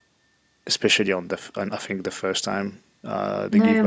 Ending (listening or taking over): taking over